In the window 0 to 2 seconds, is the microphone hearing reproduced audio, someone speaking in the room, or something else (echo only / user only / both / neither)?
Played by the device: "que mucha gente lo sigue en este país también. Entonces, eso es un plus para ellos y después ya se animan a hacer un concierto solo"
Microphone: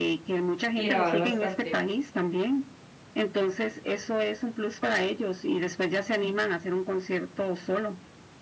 both